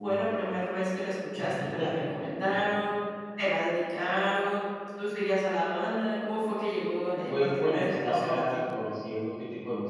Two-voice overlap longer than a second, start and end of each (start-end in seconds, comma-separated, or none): 7.3-8.6